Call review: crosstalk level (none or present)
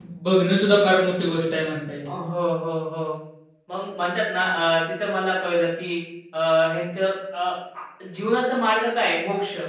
none